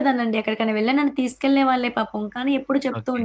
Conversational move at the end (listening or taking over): listening